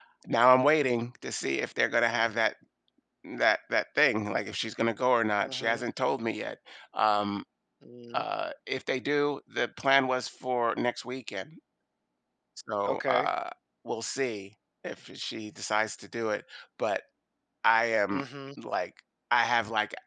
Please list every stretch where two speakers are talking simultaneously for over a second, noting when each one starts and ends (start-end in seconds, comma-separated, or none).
none